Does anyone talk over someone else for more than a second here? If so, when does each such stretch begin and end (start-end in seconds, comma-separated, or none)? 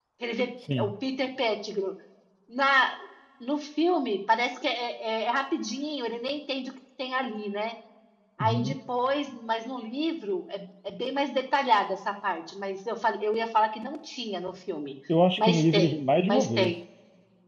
15.4-16.7